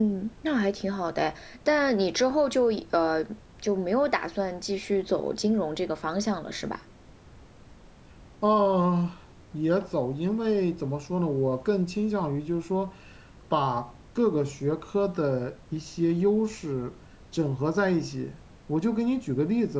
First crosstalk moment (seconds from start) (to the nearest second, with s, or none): none